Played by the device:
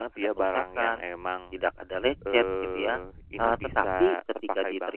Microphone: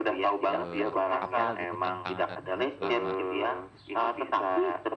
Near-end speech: present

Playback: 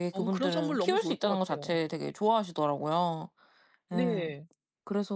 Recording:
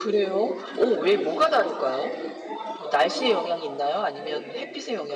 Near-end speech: present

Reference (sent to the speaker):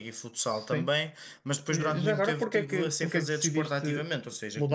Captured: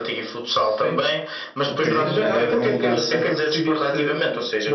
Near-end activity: present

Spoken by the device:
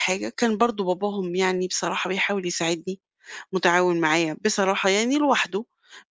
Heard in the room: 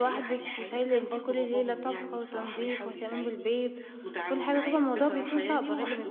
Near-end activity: present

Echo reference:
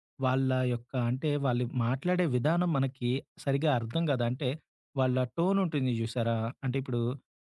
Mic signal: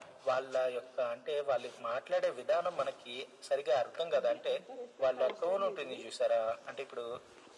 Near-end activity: present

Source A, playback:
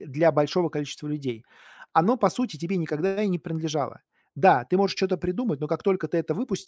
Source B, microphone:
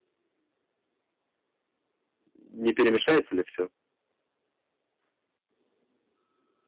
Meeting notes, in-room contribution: present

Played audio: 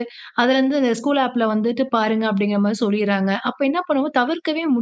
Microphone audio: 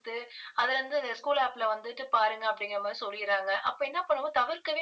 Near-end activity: none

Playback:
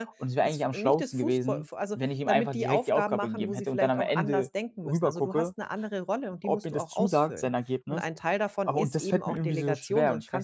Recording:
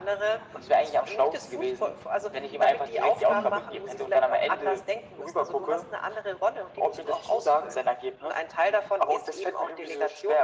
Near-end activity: present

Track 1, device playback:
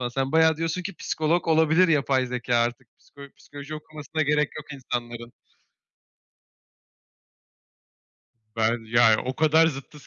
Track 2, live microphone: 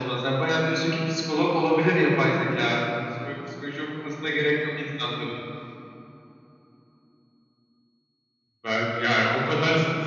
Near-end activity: none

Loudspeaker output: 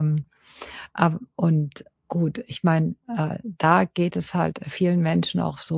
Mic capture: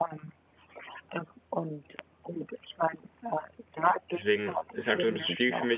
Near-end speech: present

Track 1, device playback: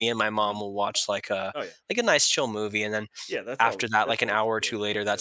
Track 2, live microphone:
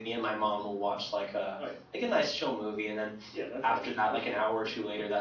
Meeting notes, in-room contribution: none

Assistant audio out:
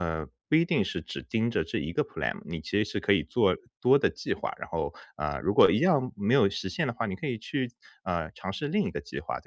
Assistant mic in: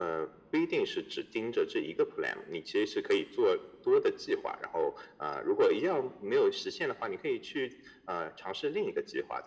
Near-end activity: none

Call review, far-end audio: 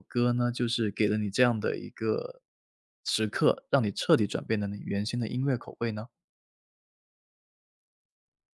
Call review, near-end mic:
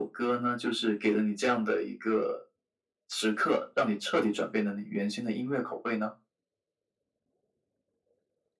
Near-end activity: none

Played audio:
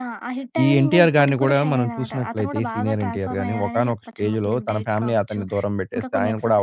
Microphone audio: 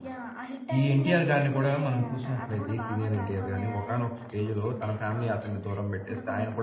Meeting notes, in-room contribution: none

